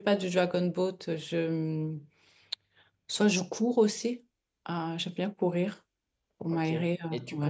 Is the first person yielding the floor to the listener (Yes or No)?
Yes